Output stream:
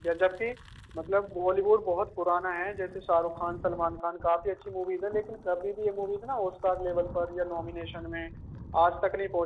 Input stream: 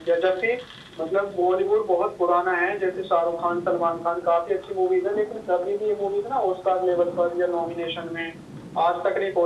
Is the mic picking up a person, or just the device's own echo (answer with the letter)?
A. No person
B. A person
A